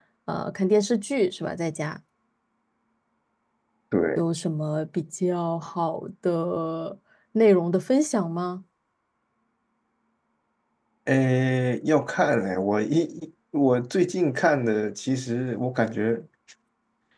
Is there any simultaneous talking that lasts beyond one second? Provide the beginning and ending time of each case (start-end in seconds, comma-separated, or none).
none